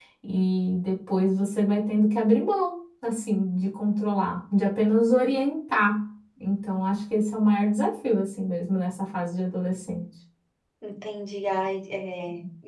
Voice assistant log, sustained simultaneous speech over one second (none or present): none